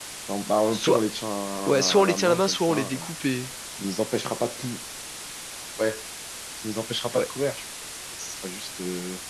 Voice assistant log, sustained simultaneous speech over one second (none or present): present